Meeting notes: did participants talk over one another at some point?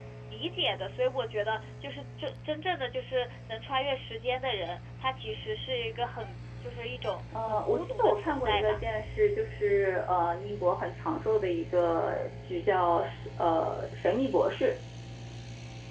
Yes, from 7.3 s

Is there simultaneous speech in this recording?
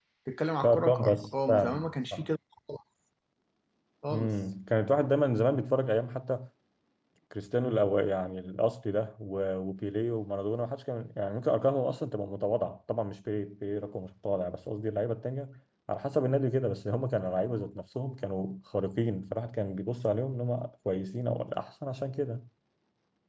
Yes, from 0.6 s

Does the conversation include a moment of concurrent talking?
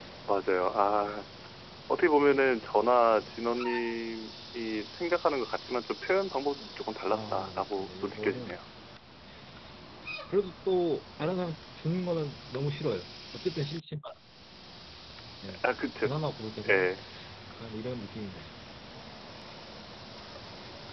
Yes, from 7.1 s

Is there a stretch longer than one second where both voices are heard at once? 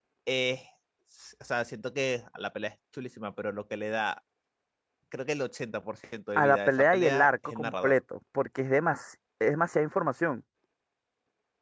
Yes, from 6.4 s

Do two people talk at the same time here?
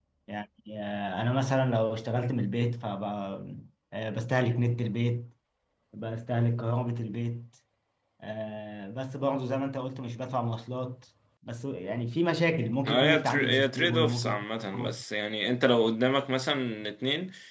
Yes, from 12.8 s

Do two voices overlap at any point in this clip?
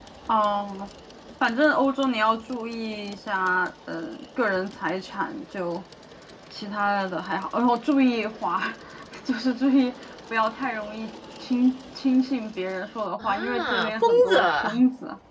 Yes, from 13.2 s

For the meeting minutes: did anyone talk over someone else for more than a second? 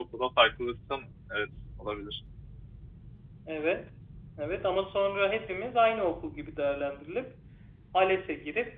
No

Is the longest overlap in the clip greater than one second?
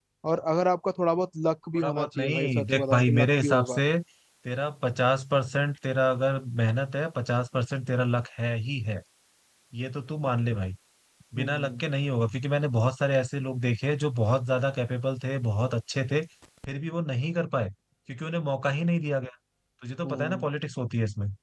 Yes, from 1.8 s

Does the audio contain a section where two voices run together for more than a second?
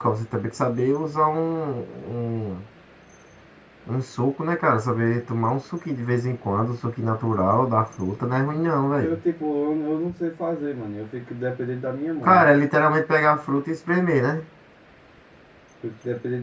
No

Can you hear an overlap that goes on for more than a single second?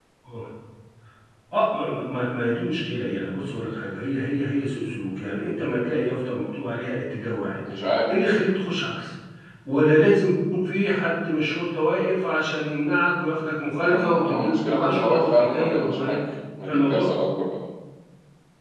Yes, from 13.8 s

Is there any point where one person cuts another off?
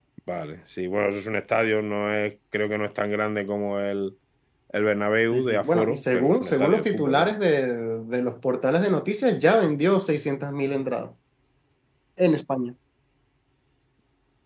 Yes, from 5.3 s

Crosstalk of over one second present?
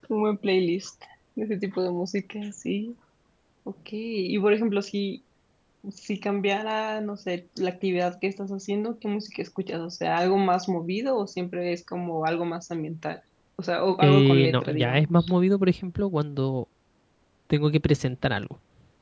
Yes, from 14.0 s

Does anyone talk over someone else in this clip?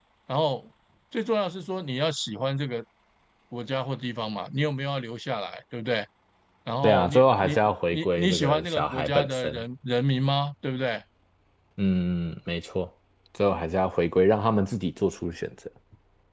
Yes, from 6.8 s

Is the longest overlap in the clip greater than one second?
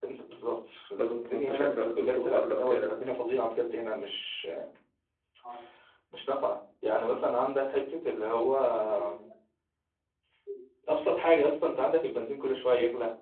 Yes, from 1.0 s

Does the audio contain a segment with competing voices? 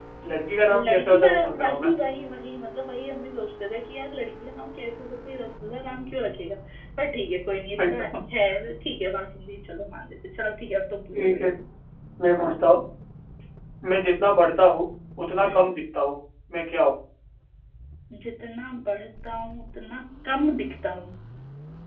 Yes, from 0.7 s

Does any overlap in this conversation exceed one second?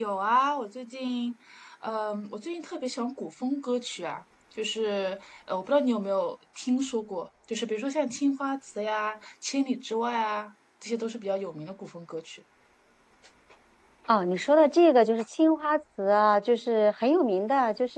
No

